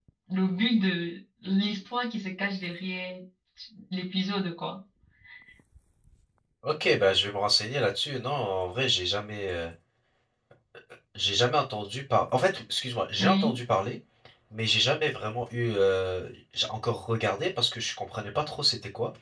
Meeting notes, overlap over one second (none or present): none